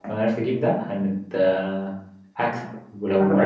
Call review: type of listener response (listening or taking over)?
listening